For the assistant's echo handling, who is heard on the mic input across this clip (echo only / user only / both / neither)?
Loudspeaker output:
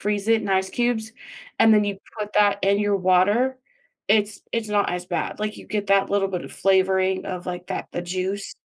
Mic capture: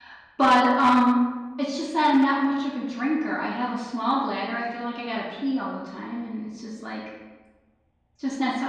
user only